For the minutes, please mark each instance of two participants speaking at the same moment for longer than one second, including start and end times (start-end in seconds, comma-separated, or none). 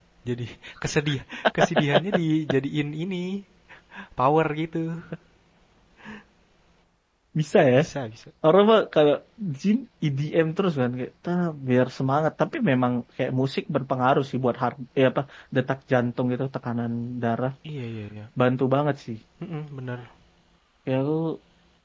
none